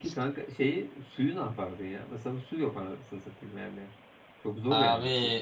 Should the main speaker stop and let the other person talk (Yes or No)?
Yes